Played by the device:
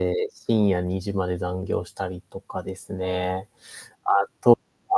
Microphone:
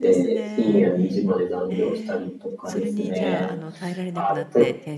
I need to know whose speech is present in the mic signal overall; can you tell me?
both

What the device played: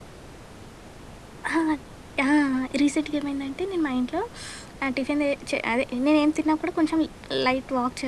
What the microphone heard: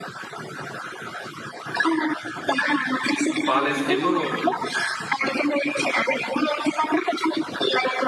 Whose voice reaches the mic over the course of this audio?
both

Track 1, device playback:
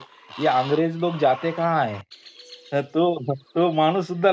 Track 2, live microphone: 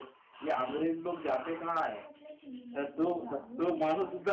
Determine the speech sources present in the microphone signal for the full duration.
both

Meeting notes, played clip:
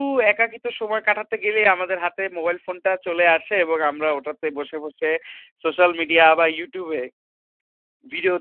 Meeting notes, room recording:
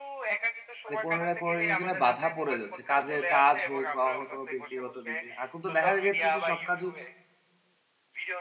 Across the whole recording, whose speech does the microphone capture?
both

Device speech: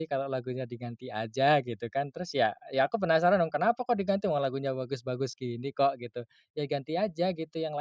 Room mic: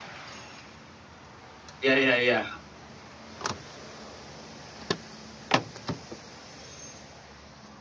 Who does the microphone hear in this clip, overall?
user only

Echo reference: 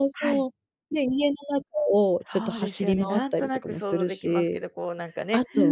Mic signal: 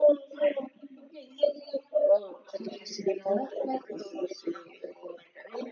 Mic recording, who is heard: echo only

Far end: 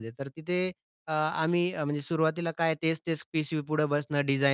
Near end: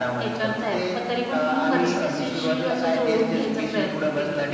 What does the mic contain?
both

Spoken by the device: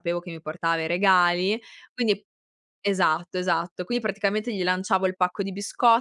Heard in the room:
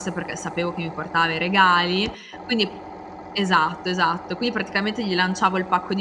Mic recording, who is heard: echo only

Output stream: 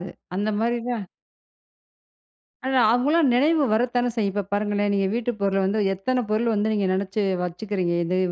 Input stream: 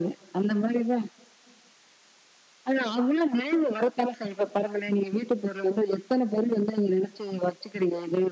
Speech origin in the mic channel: echo only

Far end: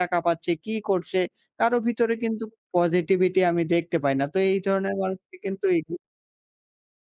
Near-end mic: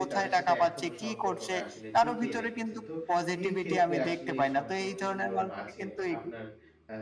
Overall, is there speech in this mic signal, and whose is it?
both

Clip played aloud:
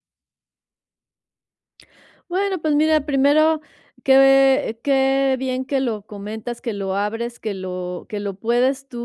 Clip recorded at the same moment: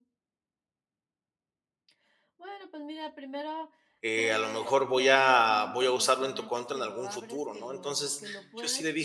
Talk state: both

